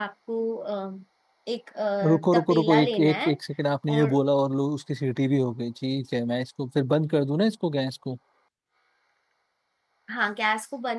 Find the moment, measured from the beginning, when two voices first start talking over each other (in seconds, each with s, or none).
2.1 s